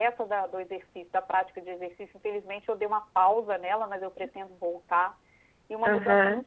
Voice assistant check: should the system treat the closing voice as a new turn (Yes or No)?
No